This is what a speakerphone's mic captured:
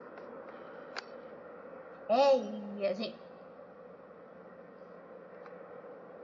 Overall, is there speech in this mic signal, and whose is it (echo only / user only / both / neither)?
user only